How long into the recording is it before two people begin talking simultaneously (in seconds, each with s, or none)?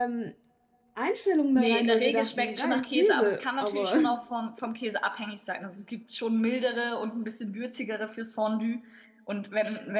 1.5 s